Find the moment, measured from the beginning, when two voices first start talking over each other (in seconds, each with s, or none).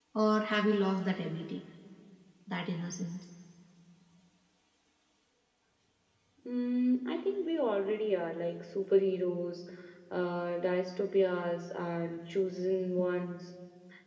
none